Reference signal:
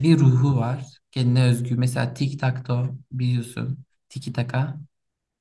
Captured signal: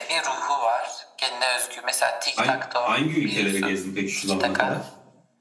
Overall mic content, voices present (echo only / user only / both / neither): both